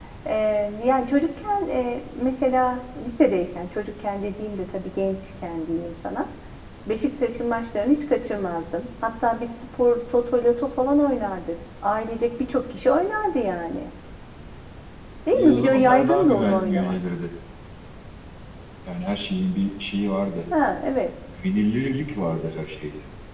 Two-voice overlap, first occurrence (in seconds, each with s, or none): 15.3 s